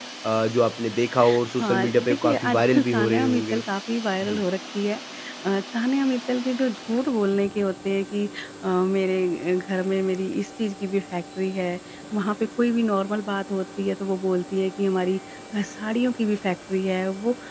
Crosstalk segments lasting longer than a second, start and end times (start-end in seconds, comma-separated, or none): 1.6-3.6